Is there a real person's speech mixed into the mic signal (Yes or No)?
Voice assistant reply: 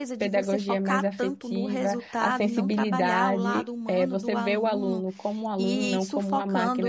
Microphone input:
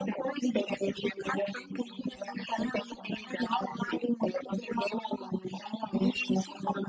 No